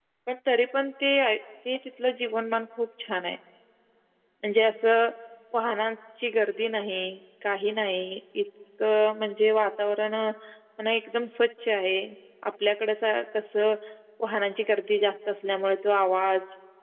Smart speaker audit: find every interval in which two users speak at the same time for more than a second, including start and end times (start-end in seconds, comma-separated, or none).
none